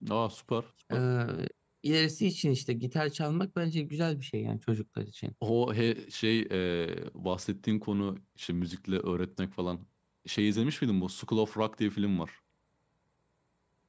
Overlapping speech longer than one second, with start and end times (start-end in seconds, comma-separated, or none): none